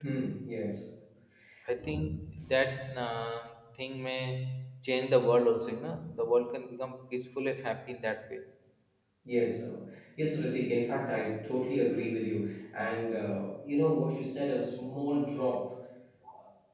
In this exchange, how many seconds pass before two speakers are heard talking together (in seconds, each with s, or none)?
none